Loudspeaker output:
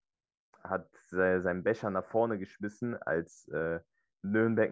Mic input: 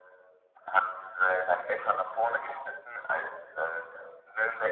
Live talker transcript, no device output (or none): none